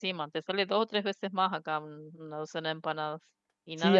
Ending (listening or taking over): taking over